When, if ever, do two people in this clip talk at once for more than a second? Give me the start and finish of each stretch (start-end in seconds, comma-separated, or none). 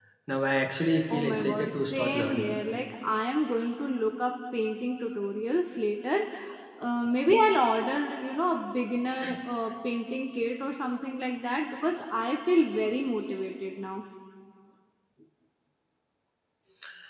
1.1-2.5